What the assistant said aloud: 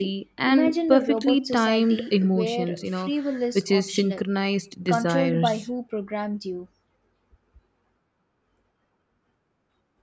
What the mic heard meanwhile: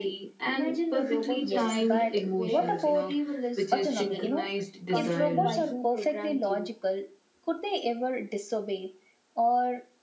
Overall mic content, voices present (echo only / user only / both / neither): both